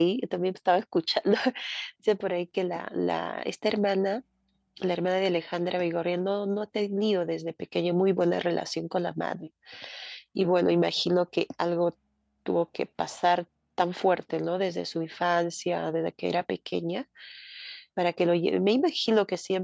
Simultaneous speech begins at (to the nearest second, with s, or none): none